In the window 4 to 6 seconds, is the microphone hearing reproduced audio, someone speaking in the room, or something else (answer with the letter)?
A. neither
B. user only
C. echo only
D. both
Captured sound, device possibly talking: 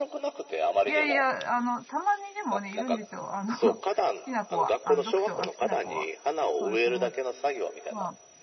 D